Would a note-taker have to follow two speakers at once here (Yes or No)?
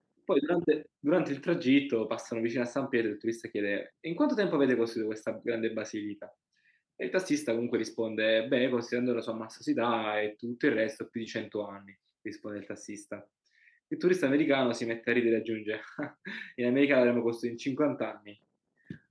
No